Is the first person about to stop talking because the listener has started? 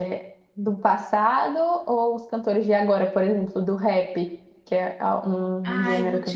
Yes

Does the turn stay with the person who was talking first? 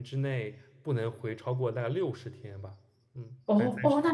No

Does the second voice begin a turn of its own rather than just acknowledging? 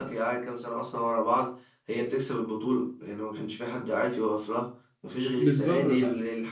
No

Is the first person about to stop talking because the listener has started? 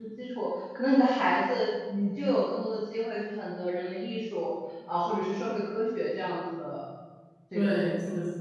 Yes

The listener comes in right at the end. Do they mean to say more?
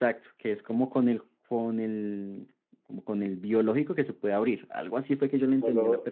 Yes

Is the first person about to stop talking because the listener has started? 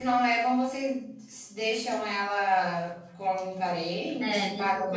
Yes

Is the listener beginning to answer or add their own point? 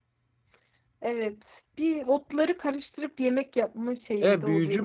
Yes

